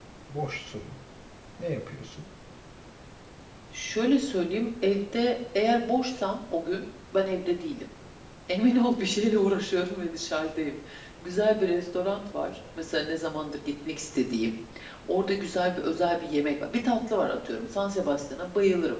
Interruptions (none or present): none